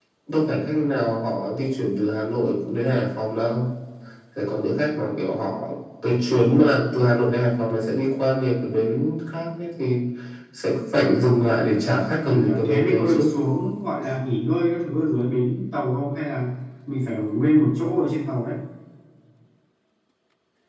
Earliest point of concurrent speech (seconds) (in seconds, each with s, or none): 11.8 s